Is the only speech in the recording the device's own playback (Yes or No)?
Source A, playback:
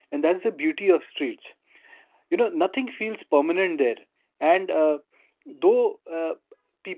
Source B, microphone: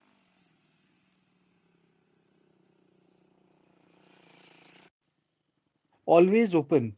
No